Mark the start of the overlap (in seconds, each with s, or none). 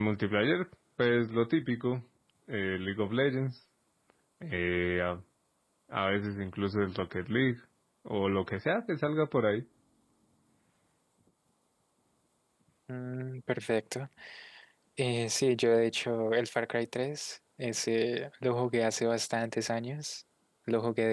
none